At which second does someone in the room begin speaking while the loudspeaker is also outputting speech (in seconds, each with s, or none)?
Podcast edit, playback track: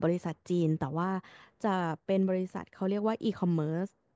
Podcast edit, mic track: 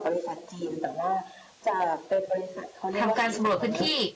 3.0 s